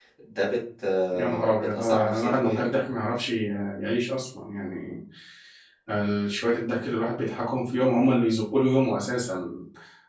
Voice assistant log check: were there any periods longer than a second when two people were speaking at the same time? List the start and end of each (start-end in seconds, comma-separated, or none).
1.1-2.6